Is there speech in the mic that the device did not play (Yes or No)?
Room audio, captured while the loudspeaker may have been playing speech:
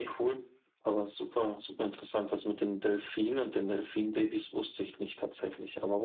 No